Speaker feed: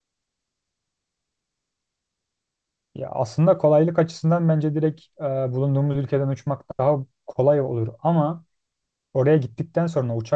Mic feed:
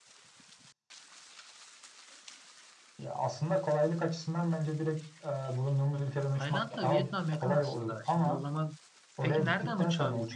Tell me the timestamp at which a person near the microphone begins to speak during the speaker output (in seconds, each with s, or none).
6.4 s